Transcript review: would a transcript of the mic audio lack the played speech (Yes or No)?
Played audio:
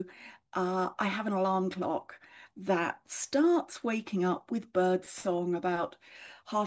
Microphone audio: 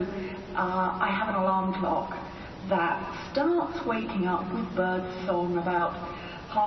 No